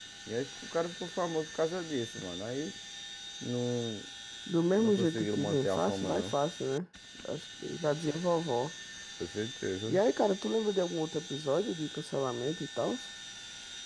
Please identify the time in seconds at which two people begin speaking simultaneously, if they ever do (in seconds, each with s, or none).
4.8 s